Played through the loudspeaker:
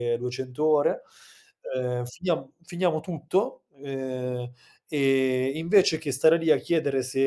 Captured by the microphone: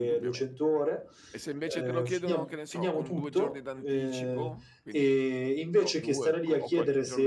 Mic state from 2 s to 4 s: both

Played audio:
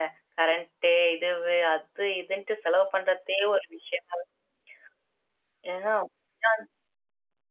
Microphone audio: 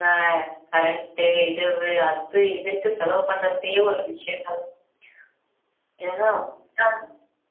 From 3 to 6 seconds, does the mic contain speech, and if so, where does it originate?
echo only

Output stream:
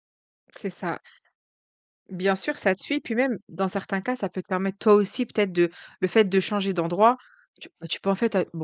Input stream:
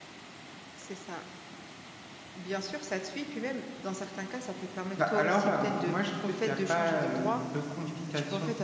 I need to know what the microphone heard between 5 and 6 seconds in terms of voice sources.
both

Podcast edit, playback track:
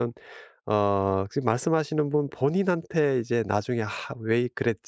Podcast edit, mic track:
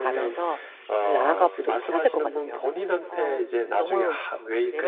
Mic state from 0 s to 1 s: both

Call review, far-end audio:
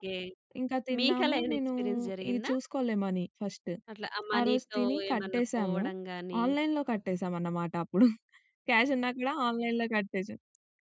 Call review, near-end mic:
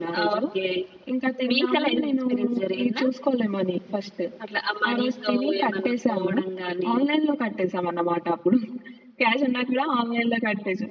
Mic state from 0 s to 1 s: echo only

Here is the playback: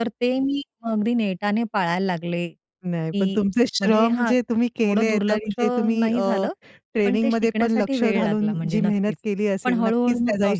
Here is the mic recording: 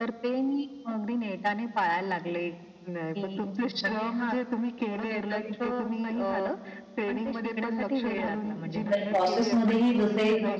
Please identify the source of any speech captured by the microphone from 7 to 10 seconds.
both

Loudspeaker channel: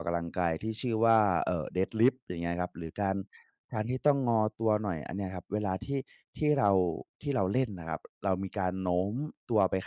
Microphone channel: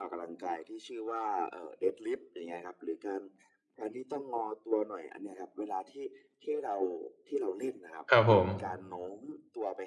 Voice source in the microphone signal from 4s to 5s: echo only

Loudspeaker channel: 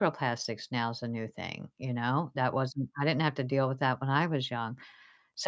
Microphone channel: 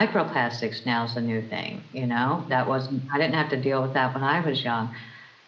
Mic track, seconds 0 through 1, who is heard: echo only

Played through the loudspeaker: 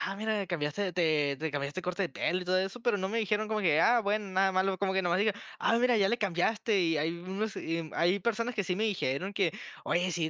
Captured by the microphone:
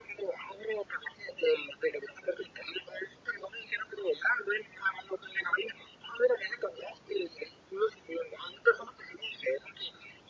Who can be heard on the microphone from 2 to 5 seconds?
echo only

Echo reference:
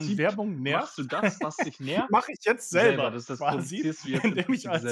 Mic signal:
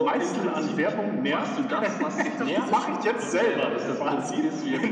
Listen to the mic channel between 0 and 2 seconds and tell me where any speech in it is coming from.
echo only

